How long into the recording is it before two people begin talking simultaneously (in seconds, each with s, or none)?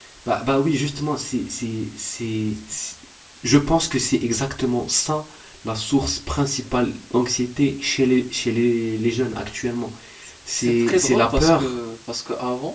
10.6 s